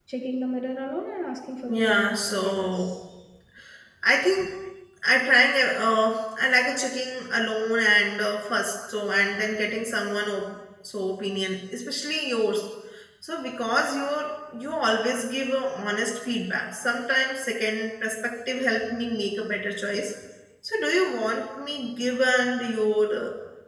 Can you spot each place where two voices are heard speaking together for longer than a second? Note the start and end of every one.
1.7-3.0

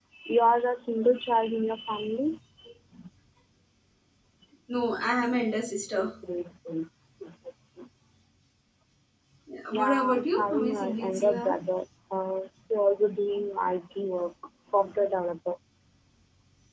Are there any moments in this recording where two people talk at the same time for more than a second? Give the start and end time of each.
9.7-11.6

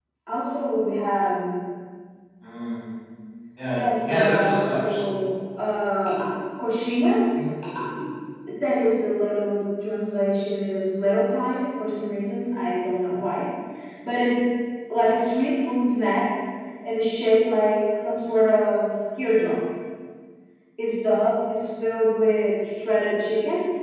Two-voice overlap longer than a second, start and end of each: 3.7-5.0

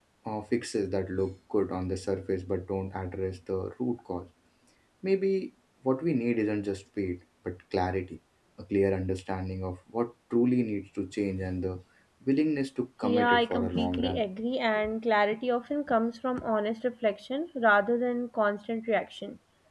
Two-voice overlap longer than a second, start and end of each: 13.0-14.2

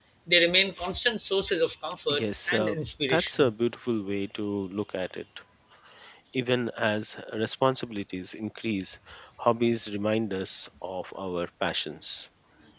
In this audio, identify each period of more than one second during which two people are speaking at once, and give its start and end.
2.1-3.5

